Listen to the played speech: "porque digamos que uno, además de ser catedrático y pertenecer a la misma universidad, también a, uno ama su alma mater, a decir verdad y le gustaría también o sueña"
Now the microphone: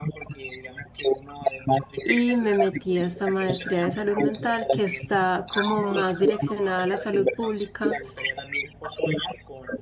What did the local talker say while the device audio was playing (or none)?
Y me metí a esta maestría de salud mental que está como más direccionada a la salud pública.